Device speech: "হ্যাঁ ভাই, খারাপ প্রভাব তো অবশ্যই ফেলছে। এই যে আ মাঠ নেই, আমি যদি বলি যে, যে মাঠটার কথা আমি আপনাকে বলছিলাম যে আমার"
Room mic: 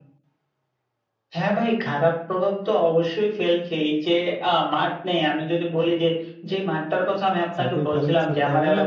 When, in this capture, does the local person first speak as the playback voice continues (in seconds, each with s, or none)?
7.5 s